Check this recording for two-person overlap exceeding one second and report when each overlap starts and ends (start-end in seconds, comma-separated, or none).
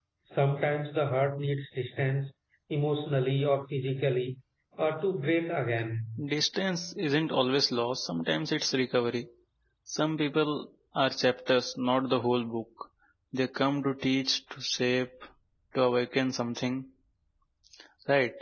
none